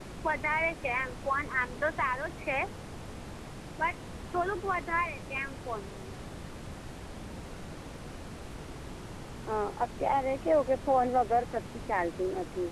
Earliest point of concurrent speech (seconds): none

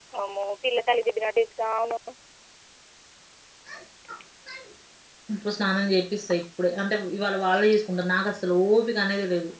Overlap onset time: none

